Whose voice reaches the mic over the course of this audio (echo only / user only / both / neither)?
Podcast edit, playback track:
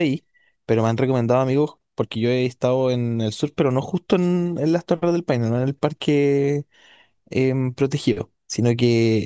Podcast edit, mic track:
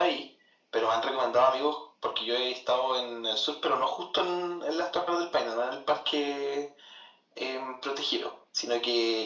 echo only